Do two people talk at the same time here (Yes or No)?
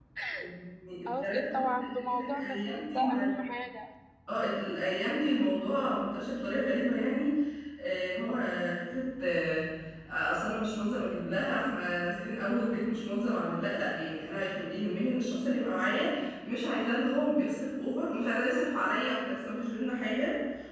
Yes